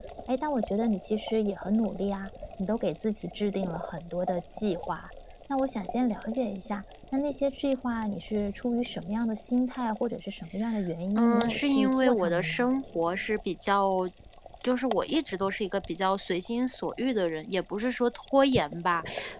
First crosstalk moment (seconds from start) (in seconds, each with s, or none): 11.2 s